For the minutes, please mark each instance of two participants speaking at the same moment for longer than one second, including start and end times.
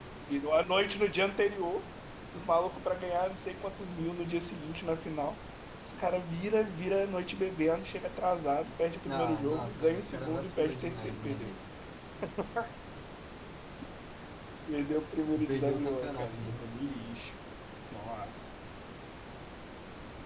9.1-11.5, 15.3-16.6

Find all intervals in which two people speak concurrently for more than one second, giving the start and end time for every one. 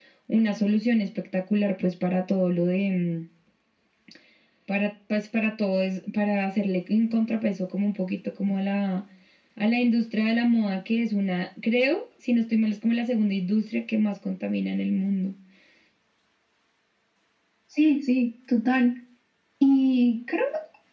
none

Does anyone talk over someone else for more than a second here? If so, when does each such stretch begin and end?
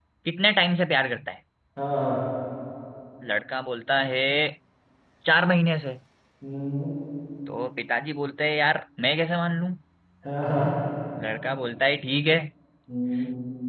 none

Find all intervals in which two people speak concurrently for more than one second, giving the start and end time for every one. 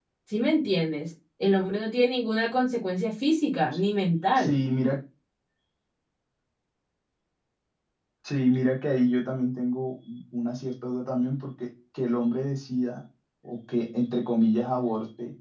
none

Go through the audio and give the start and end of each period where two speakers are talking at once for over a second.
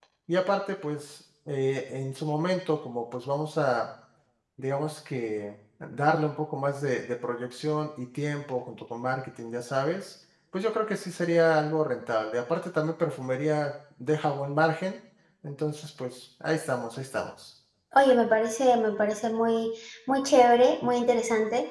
none

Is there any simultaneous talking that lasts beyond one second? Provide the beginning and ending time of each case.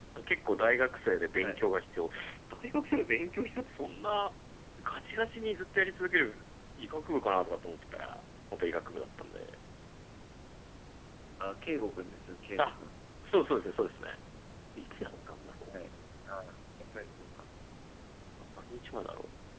none

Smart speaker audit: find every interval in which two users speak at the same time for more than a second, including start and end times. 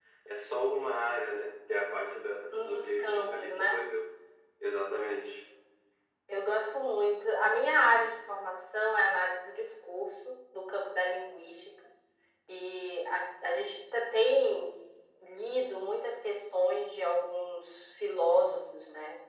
2.5-3.8

